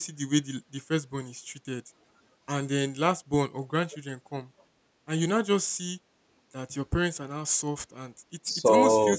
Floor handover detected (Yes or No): No